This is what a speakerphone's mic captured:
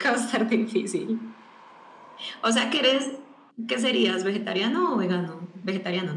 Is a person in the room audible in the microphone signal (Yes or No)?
No